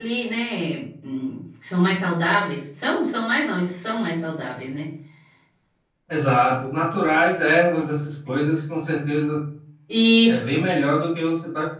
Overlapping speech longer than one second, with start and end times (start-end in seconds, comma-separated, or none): none